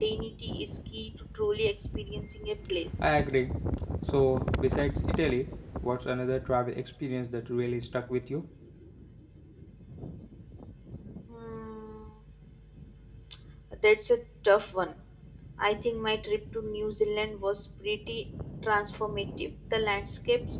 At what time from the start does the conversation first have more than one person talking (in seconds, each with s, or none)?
none